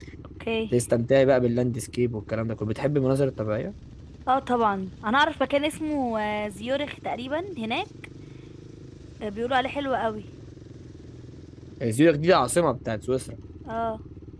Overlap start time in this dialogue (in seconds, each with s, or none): none